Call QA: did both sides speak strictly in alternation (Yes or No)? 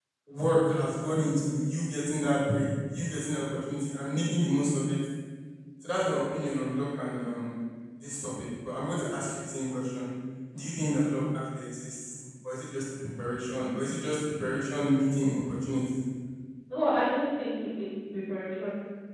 Yes